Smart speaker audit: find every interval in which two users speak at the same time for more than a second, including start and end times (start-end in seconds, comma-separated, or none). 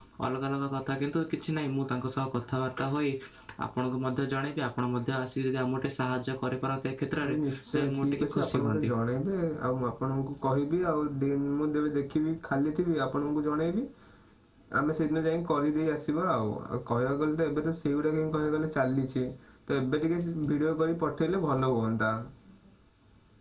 7.2-8.9